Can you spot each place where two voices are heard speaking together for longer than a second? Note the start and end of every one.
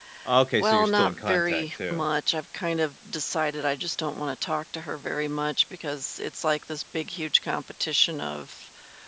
0.6-2.0

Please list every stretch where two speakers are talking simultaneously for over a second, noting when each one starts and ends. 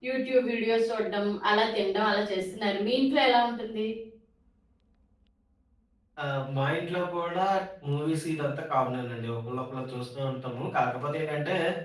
none

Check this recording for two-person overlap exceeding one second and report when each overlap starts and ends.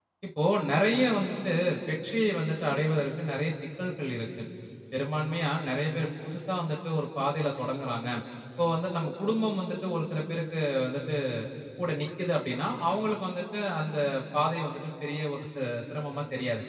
none

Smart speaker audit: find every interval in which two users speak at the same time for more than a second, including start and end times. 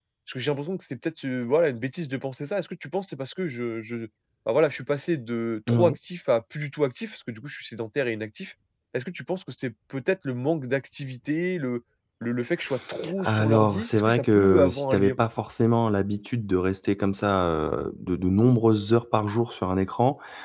13.2-15.2

